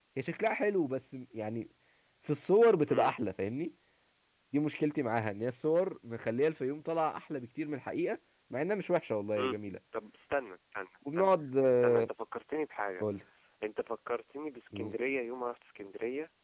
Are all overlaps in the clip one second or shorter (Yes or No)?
Yes